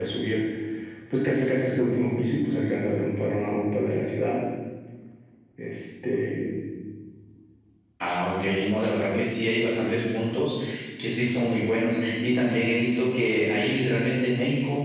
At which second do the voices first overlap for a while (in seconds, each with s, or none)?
none